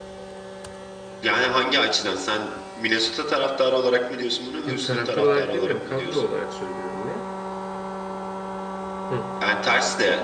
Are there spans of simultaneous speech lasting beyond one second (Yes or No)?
Yes